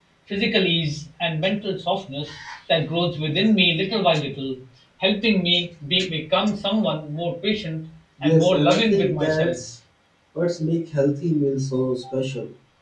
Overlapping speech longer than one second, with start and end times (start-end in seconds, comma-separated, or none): 8.3-9.6